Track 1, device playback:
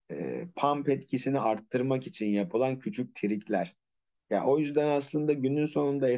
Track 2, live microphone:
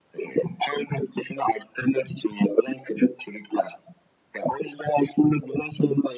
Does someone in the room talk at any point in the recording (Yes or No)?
No